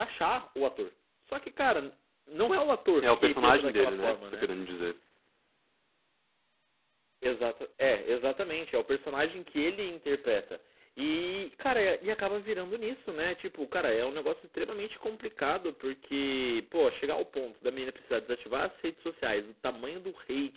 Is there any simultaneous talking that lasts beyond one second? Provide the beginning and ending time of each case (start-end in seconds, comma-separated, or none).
3.0-4.5